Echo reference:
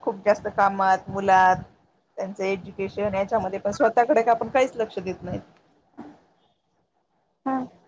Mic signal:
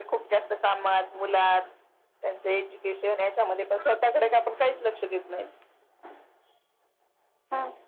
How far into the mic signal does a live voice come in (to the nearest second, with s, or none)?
none